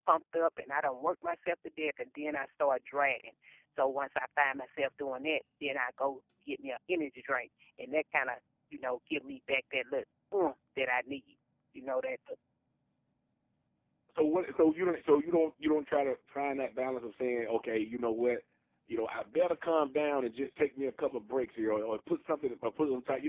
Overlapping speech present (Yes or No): No